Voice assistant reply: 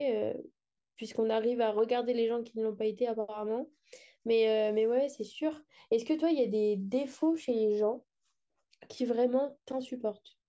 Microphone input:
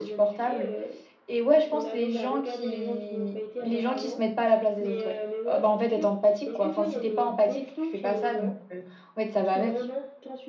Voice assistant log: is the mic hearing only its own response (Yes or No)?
No